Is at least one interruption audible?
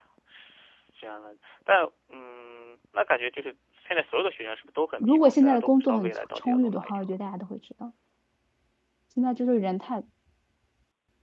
Yes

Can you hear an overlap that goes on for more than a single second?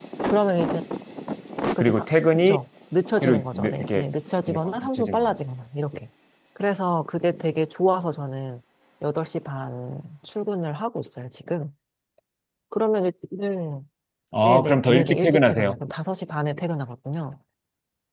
Yes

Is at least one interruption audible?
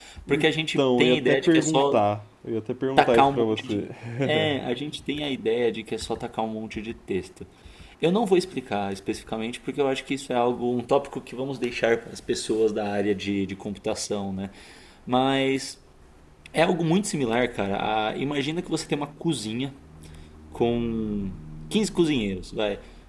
Yes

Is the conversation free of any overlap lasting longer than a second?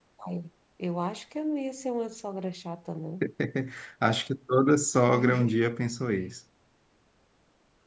Yes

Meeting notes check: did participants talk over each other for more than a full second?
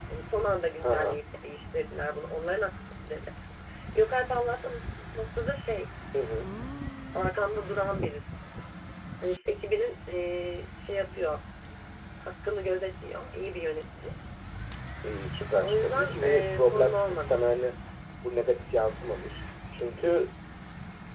Yes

